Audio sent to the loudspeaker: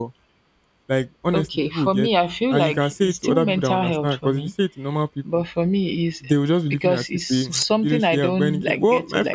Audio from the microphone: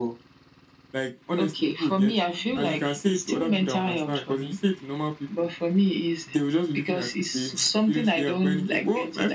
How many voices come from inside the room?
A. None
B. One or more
B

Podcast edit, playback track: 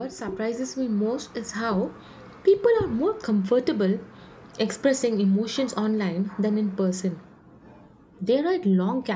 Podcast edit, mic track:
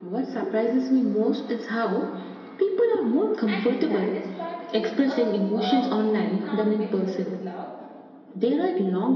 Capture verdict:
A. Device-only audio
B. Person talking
B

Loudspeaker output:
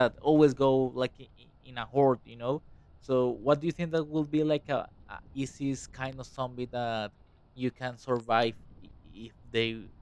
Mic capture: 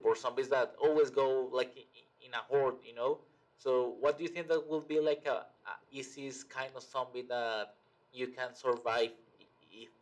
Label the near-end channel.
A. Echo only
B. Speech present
A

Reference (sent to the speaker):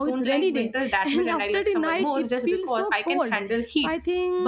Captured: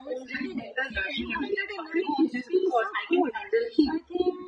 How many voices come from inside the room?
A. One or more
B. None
B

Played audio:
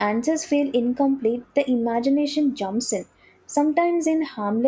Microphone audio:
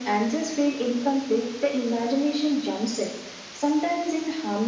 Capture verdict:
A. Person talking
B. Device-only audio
B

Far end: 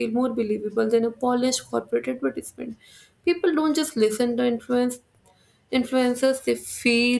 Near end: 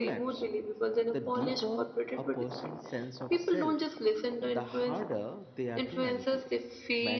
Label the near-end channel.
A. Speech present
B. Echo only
A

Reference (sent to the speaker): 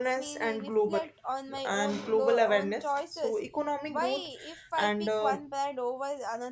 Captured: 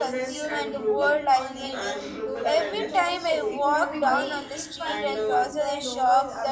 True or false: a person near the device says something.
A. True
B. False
A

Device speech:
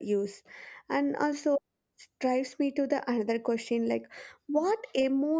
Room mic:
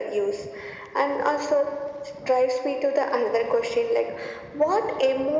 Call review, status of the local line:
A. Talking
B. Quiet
B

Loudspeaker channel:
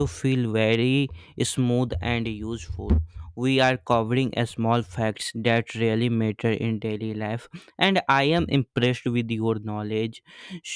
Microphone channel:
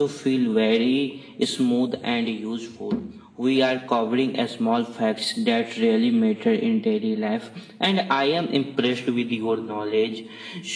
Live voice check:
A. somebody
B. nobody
B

